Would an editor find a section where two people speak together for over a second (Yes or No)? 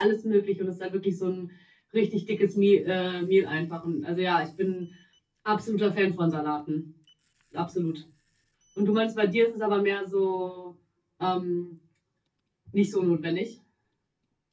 No